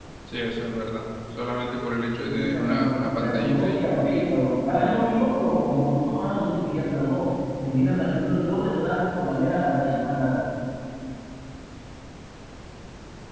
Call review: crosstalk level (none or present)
present